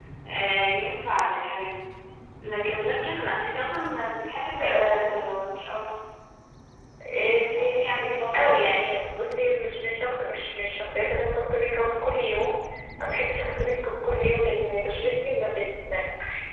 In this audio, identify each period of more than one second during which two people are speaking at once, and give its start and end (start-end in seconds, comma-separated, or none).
7.1-9.0